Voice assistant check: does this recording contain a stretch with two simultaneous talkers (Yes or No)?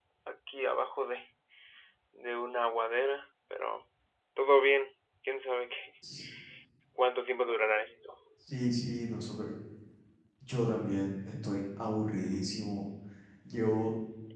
No